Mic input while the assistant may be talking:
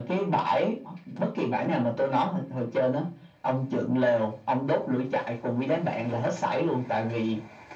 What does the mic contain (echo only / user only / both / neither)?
echo only